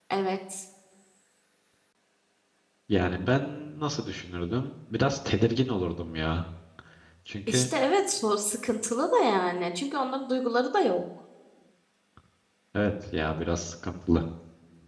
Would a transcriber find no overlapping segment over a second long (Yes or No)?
Yes